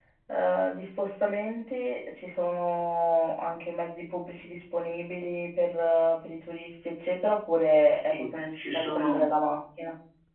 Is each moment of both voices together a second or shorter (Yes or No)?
No